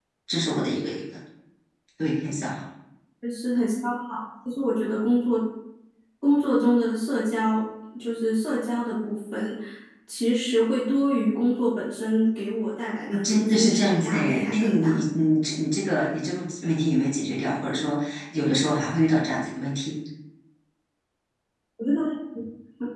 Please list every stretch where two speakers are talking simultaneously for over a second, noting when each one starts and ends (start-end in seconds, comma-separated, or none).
13.2-15.0